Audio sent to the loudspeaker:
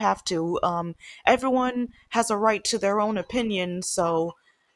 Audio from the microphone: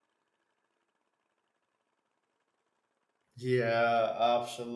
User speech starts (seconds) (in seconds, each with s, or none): 3.4 s